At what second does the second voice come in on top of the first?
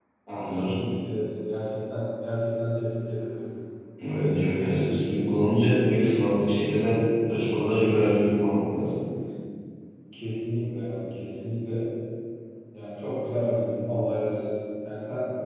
none

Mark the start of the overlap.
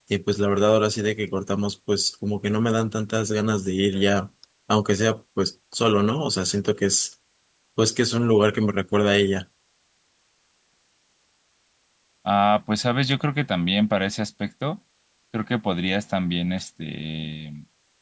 none

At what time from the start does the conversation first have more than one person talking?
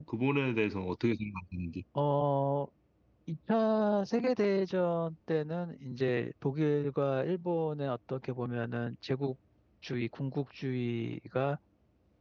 none

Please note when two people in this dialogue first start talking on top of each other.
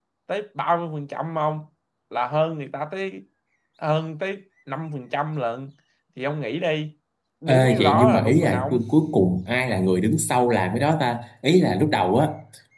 7.5 s

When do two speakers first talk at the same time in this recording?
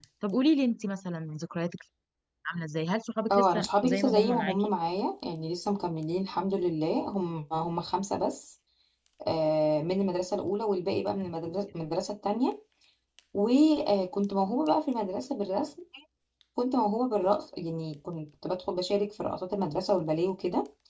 3.3 s

